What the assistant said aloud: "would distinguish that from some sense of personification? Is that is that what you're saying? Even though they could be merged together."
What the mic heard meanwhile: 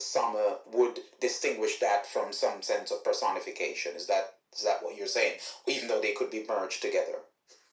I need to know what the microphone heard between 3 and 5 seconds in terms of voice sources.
echo only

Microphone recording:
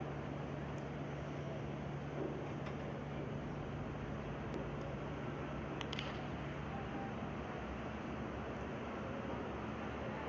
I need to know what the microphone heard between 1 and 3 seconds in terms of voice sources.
neither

